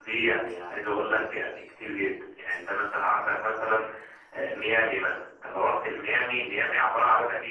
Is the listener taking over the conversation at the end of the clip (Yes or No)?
No